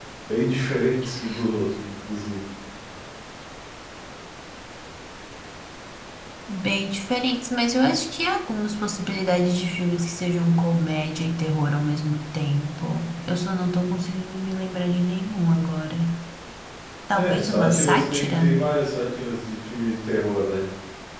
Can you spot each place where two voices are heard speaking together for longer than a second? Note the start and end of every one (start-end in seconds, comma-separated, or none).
17.1-18.6